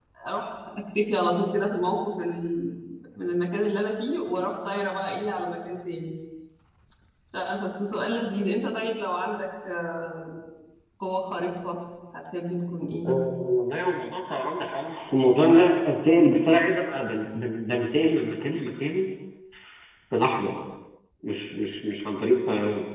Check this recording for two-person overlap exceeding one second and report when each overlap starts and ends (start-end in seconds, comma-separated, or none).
none